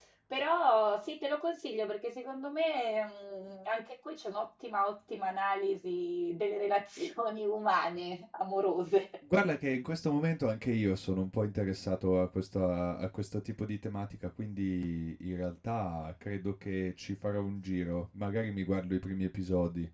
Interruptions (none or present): none